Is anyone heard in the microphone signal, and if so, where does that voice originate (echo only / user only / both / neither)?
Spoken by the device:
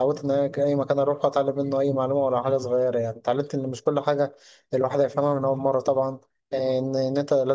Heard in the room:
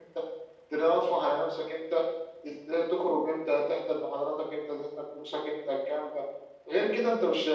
user only